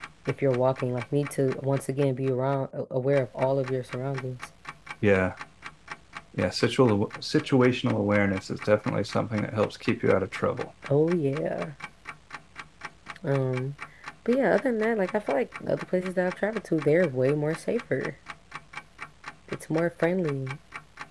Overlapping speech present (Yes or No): No